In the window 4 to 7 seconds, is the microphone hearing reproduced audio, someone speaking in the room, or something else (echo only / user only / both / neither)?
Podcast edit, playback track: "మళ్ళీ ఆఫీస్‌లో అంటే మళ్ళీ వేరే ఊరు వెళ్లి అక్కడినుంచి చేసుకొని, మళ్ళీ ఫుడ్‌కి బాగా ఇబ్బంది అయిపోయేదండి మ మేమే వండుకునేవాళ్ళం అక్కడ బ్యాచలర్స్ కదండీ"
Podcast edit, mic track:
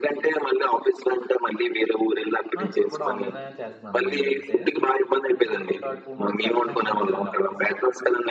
both